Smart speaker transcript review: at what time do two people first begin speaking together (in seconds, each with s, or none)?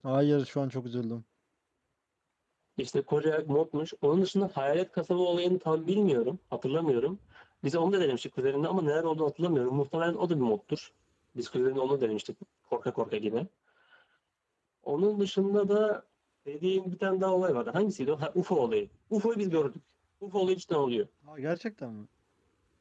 none